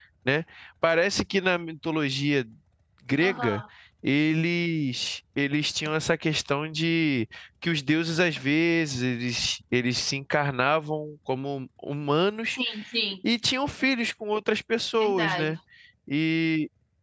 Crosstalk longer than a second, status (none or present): none